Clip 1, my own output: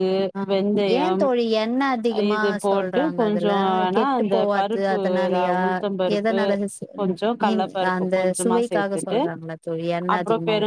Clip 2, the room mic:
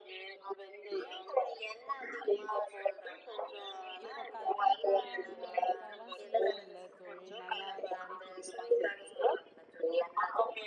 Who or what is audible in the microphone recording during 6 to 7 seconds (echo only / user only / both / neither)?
both